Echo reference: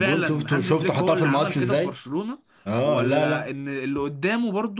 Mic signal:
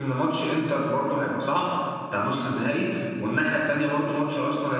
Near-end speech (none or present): present